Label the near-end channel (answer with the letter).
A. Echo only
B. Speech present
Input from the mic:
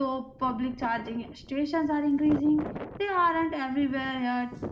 A